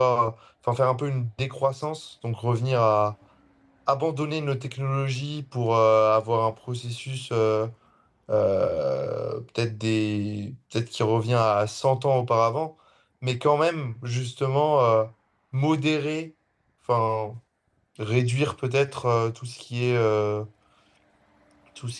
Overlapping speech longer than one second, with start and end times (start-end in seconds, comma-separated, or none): none